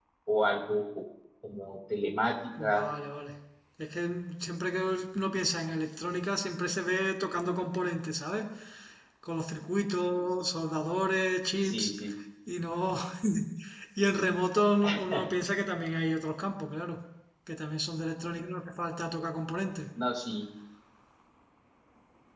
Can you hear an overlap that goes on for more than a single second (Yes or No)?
No